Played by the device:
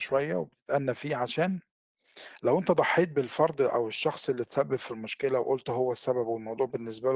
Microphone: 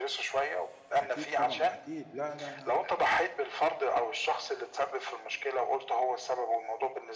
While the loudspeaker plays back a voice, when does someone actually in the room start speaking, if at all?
1.0 s

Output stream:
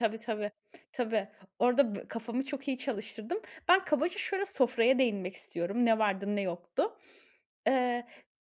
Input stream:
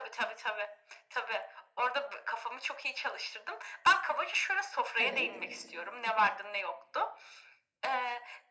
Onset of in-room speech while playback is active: 5.0 s

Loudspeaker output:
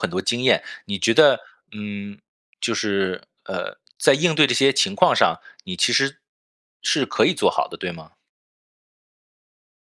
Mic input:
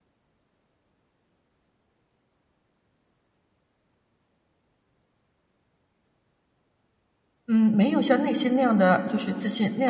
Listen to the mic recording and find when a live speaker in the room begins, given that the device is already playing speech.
7.5 s

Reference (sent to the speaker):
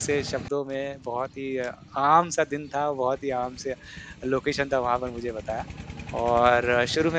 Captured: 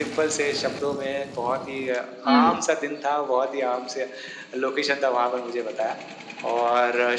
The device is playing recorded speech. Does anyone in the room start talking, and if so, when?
2.3 s

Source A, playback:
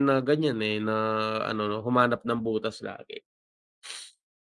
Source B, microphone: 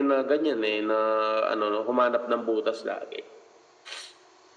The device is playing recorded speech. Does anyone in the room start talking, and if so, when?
none

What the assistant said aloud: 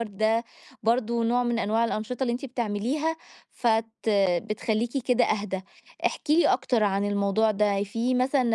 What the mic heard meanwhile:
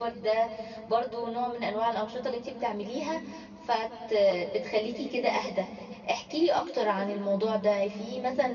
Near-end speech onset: none

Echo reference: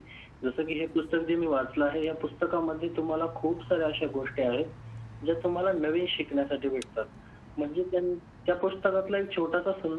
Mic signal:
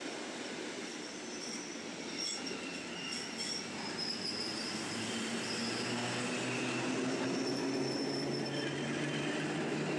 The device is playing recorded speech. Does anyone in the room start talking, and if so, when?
none

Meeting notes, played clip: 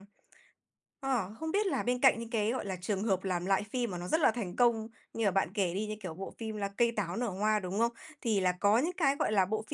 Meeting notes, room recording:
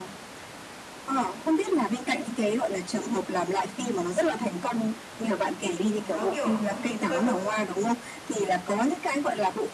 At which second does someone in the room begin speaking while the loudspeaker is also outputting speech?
5.8 s

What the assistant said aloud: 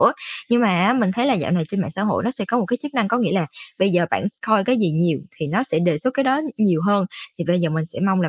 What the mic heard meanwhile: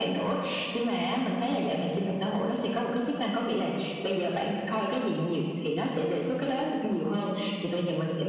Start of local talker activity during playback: none

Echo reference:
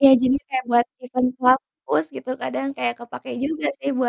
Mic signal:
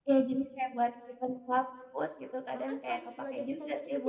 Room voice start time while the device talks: 2.5 s

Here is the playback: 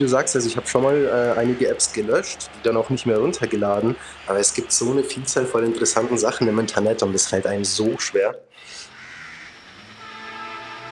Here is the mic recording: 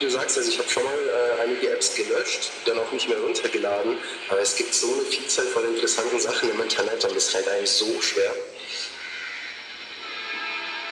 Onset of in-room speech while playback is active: none

